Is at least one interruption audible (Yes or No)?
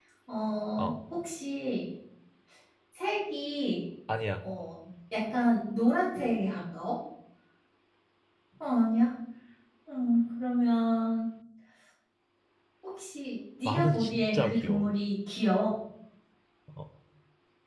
Yes